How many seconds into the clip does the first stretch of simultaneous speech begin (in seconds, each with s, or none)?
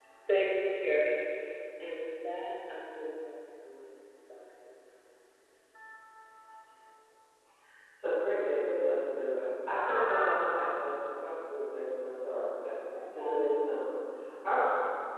none